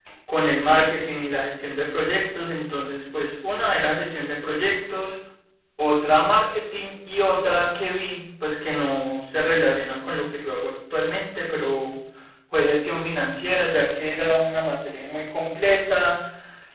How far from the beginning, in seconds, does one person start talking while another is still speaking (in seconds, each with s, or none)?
none